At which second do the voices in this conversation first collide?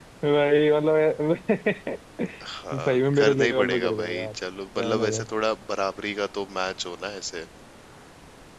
2.7 s

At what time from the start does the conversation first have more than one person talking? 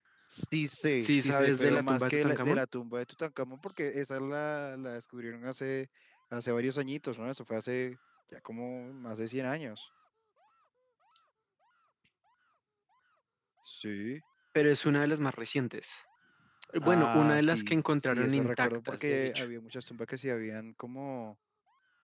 1.0 s

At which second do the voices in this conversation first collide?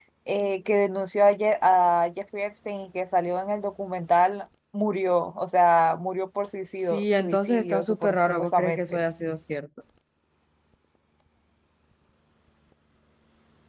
6.8 s

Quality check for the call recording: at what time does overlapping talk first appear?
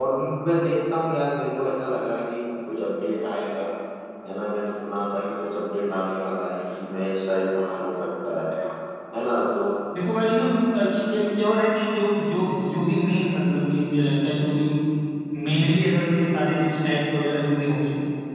none

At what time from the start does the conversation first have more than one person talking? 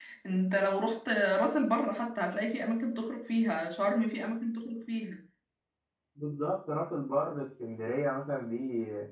none

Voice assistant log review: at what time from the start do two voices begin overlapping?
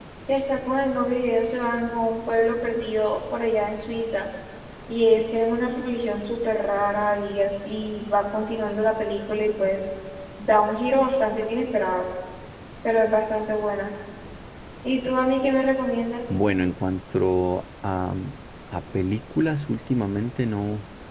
none

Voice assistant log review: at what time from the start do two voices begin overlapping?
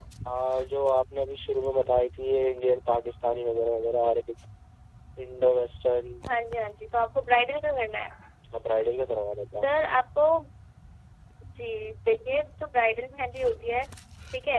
none

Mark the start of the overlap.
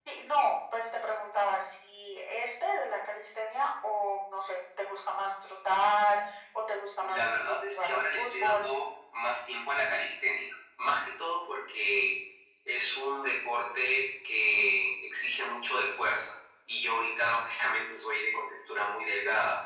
7.0 s

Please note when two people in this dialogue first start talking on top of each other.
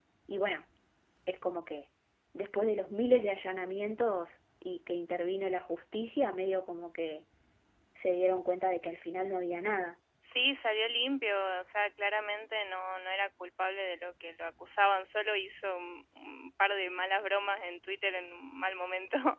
none

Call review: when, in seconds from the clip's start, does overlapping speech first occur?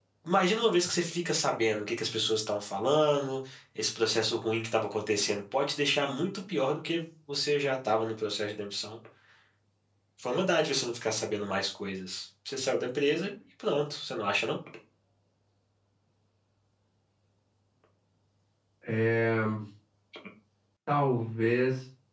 none

